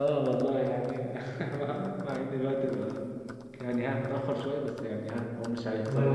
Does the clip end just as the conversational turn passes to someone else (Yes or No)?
No